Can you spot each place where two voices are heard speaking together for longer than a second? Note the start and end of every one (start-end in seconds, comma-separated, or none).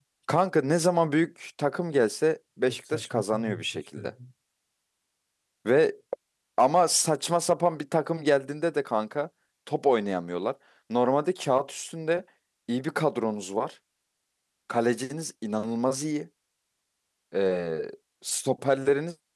2.7-4.1